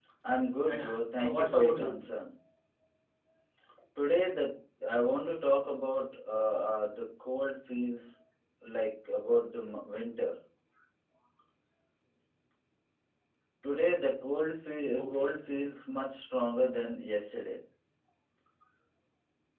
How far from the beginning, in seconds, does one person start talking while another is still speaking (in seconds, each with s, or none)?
0.7 s